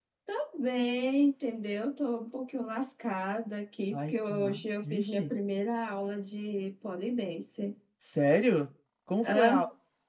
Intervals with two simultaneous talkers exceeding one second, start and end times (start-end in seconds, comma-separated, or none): 3.9-5.2